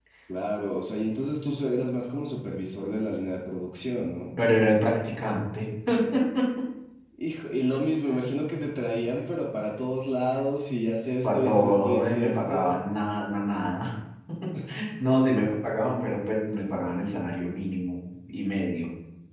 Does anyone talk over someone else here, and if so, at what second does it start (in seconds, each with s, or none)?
11.2 s